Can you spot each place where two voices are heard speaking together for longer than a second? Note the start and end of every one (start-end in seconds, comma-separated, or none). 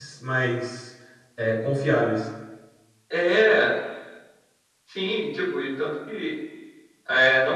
none